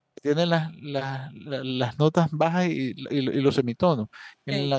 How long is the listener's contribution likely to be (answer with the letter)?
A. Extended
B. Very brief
B